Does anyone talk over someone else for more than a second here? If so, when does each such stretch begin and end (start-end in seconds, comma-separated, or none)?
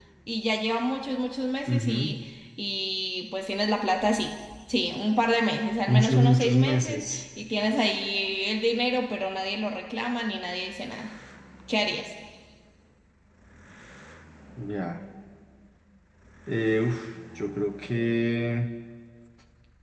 5.9-7.2